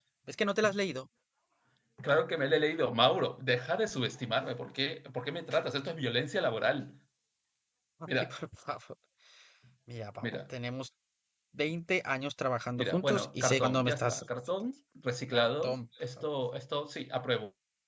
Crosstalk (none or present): present